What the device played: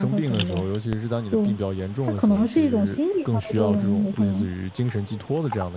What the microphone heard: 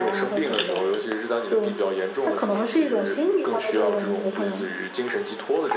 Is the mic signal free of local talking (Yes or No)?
Yes